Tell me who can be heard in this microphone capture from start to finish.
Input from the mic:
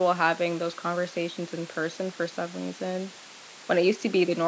user only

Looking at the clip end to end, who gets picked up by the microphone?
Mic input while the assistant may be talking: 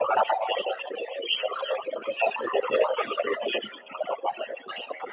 echo only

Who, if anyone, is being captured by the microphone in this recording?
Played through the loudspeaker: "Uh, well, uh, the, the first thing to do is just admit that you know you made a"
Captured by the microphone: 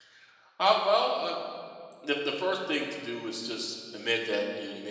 echo only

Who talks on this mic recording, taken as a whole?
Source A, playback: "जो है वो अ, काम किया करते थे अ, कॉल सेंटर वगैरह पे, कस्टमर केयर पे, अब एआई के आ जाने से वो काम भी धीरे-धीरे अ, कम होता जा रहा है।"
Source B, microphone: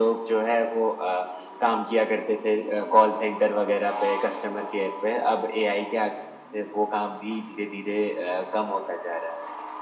echo only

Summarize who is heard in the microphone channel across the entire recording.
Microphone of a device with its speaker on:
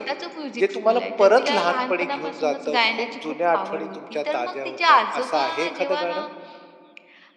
echo only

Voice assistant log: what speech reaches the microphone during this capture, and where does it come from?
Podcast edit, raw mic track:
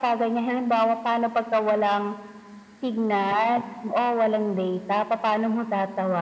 echo only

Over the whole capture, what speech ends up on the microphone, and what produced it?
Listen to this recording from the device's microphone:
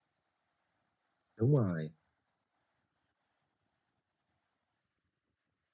user only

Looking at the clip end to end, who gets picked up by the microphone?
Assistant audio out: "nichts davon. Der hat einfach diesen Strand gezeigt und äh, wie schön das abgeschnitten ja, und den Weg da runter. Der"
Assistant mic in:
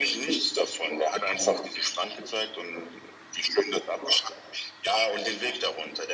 echo only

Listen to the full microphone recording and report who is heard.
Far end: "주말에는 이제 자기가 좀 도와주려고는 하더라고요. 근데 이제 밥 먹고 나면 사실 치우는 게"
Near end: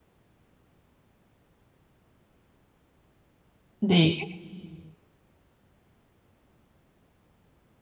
user only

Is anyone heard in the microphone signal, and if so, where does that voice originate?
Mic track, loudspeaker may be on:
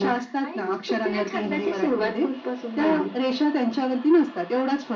echo only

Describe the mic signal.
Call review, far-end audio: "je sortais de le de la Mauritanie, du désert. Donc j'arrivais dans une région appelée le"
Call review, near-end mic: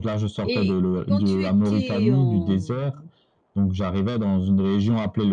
both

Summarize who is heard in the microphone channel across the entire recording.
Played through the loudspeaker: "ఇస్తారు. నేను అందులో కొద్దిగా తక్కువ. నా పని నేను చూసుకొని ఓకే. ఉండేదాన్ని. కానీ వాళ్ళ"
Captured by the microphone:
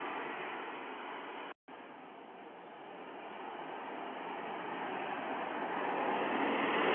neither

